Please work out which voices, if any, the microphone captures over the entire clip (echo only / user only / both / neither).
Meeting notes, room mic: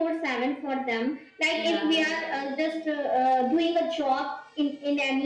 both